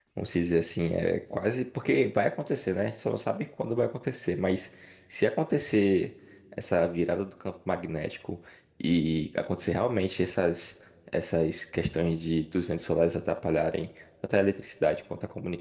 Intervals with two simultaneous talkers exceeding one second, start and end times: none

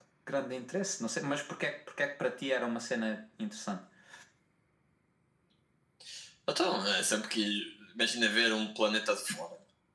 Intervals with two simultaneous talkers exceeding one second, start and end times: none

